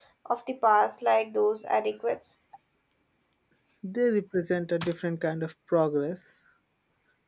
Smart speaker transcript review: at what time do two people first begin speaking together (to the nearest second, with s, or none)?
none